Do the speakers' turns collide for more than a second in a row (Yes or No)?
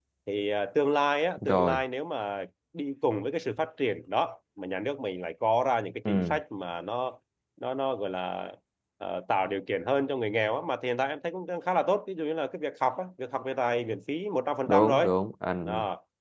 No